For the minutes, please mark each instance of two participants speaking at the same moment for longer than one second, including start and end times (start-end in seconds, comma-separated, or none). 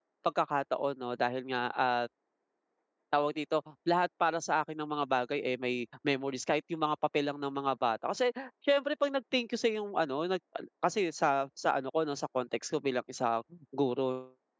none